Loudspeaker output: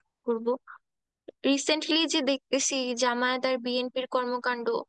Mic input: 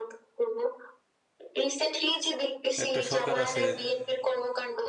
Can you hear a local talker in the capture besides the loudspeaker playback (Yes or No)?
Yes